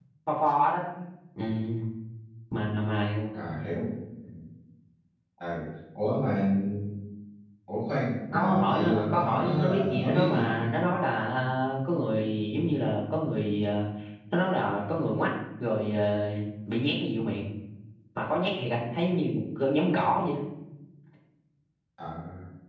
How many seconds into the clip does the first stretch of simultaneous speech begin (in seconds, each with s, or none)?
8.3 s